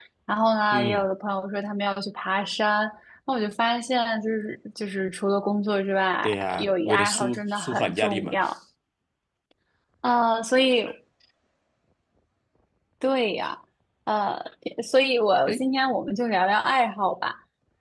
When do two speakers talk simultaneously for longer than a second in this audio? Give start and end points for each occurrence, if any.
6.2-8.4

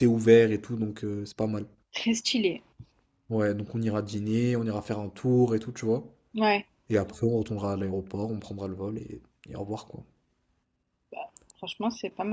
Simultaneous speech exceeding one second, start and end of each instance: none

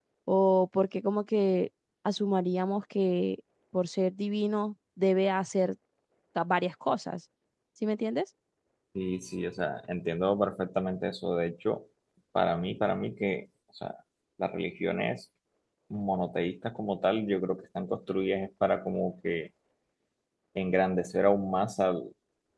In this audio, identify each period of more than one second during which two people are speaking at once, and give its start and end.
none

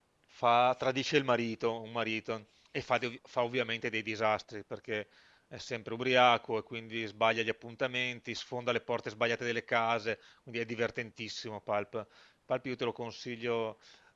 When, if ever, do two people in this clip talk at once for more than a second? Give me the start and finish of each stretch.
none

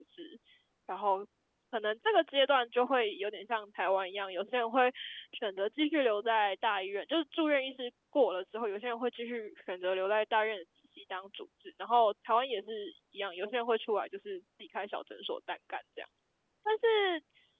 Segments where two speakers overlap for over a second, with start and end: none

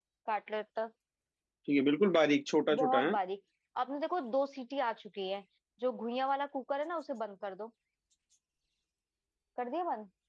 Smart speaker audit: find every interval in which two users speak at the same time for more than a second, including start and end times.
none

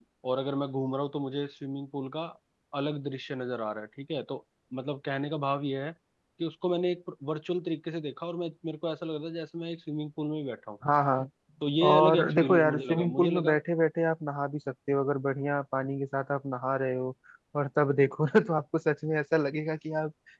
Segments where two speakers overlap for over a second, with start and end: 11.9-13.5

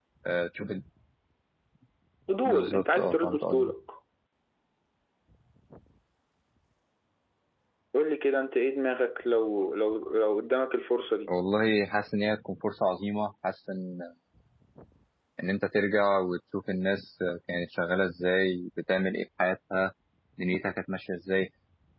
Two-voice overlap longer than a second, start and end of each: 2.5-3.7

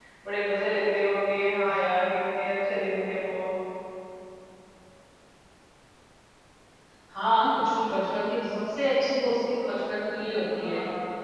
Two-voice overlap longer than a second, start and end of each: none

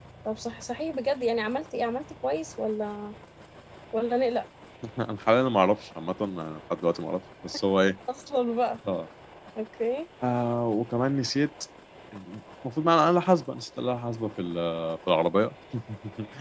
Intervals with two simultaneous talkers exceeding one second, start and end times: none

